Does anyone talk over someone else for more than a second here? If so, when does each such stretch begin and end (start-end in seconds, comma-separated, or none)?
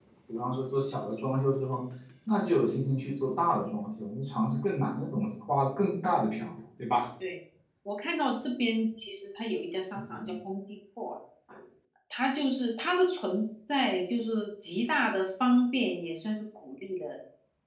none